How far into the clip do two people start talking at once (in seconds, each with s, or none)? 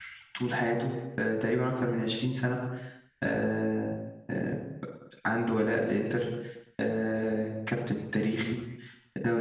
none